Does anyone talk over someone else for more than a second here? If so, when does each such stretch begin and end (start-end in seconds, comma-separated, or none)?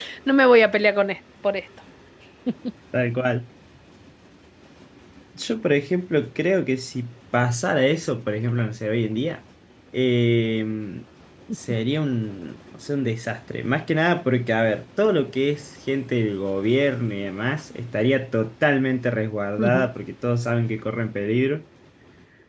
none